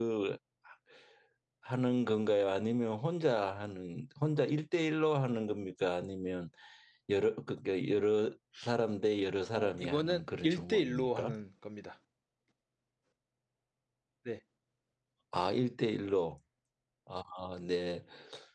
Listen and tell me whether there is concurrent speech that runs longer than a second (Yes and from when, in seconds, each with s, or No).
Yes, from 9.5 s